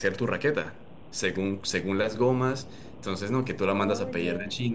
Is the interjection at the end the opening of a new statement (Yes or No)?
No